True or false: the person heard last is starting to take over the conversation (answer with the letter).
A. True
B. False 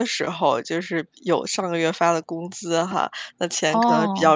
B